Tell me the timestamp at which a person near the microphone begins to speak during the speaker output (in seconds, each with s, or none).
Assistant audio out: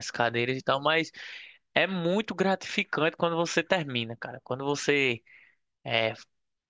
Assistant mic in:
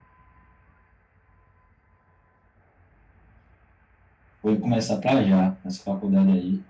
4.4 s